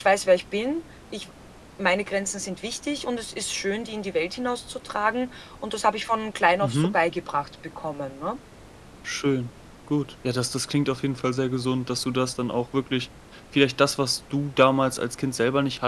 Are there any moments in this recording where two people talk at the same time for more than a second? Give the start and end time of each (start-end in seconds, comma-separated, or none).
none